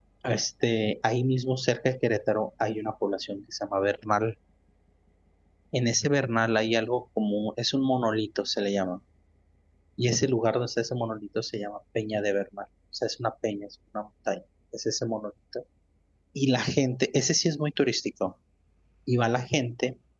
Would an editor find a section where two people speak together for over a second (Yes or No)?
No